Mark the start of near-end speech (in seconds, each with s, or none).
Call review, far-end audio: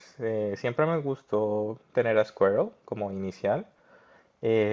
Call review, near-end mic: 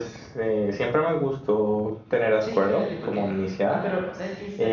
2.4 s